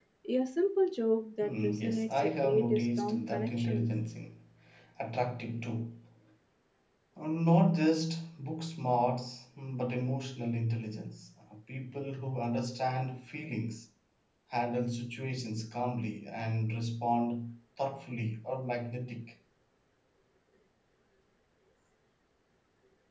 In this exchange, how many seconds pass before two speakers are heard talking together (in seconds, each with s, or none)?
1.4 s